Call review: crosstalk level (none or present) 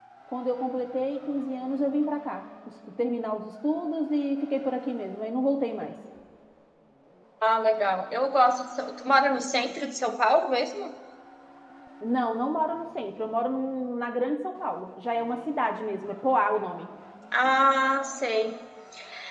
none